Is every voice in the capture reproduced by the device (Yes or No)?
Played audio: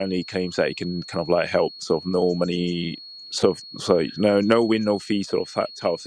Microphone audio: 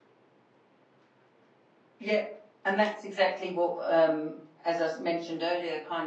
No